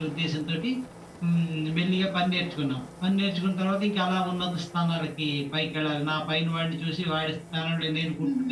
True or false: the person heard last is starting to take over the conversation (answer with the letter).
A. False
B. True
B